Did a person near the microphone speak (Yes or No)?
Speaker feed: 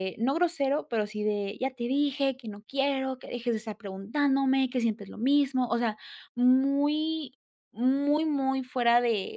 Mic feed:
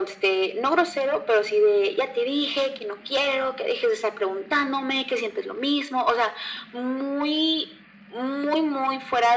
No